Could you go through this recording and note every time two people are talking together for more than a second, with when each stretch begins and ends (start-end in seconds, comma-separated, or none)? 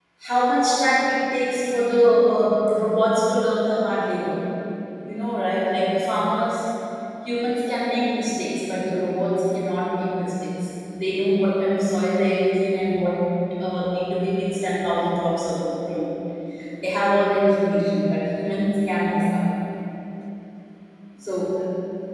none